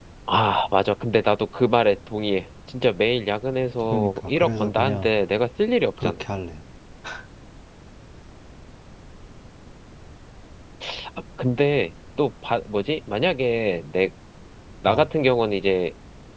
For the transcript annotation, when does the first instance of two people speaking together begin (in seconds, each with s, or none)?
3.9 s